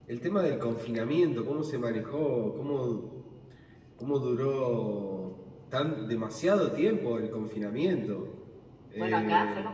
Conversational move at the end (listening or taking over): taking over